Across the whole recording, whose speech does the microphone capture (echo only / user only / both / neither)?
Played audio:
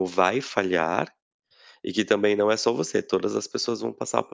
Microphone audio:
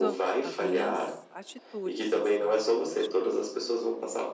both